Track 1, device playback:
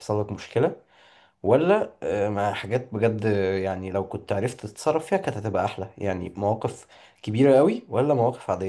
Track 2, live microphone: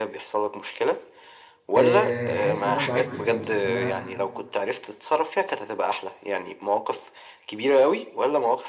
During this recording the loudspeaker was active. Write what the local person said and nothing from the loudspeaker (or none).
آه، حاسس ان انا ضعيف قدامه حاسس ان انا